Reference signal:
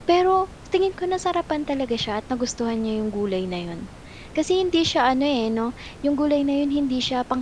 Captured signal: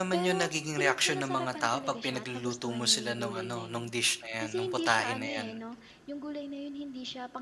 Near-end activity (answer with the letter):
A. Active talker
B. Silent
A